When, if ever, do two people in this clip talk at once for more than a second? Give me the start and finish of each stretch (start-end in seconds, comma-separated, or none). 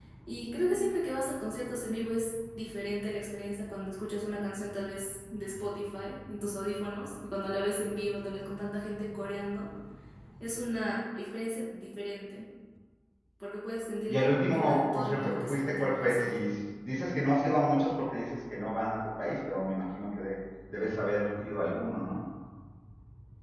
14.1-16.4